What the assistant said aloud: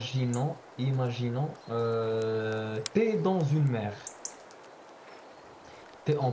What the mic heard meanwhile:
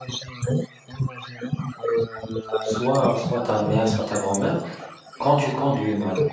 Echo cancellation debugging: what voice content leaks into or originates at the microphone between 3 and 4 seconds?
both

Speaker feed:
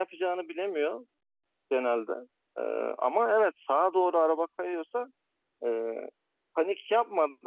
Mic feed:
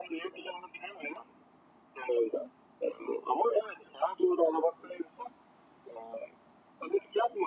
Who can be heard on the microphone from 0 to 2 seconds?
echo only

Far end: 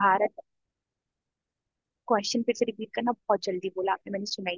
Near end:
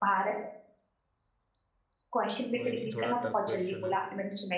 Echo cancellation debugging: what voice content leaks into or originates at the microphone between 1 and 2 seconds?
neither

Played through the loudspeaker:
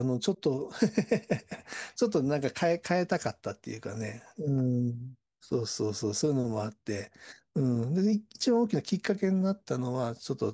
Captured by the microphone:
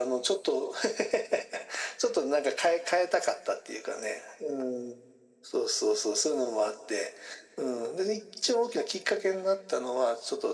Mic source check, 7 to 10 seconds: echo only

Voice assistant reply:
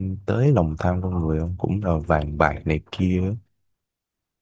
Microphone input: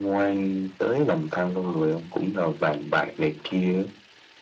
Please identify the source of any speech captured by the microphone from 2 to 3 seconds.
echo only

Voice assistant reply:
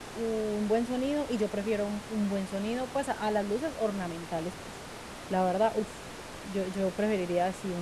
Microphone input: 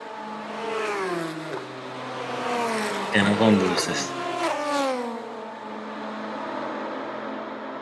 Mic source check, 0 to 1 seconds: neither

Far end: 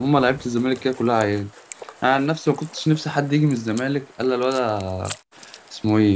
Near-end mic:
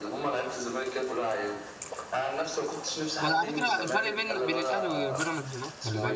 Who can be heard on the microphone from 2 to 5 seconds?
both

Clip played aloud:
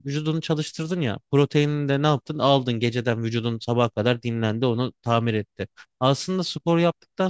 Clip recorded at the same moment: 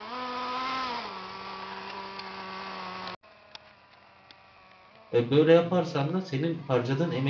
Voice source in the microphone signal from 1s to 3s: neither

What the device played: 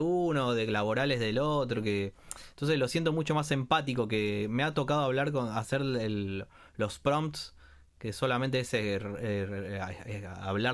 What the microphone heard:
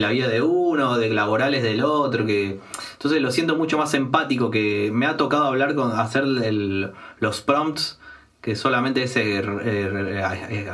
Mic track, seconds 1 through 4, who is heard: echo only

